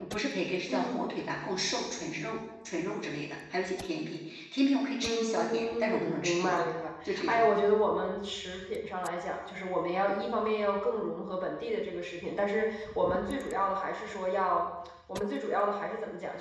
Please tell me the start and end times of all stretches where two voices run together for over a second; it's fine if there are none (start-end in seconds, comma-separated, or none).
5.0-6.6